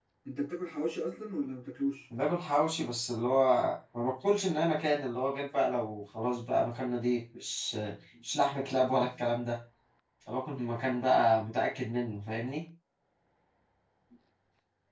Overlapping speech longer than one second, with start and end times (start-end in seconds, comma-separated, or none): none